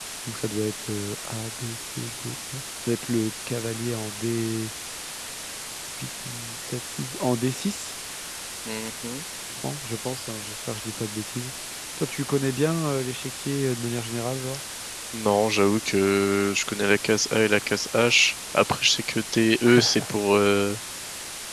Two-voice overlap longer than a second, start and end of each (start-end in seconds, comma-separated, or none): none